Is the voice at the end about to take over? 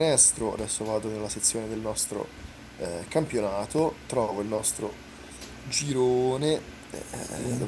No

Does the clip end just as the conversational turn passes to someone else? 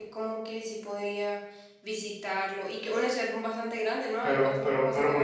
Yes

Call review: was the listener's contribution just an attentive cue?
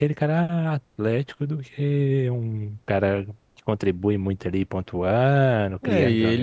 No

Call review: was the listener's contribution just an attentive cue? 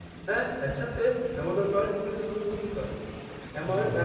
Yes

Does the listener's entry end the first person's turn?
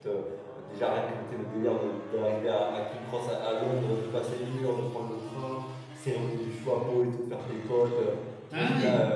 No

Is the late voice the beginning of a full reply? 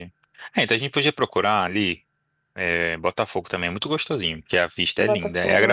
No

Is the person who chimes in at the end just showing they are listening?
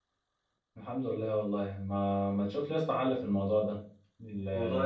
Yes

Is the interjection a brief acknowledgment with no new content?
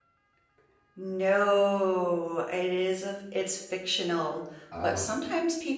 Yes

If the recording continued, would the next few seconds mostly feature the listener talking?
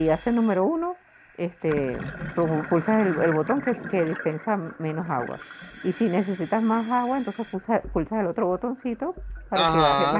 Yes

